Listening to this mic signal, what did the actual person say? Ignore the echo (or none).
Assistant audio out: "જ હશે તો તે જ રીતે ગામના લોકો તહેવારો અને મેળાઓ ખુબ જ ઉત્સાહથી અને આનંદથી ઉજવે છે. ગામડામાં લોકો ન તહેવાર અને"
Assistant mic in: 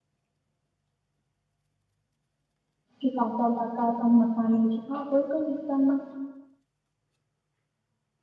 કે કચા પાકા પણ મકાન હોય છે હા કોઈ પણ વિસ્તારમાં